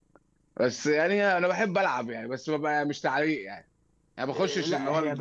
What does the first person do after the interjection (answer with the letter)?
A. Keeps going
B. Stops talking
B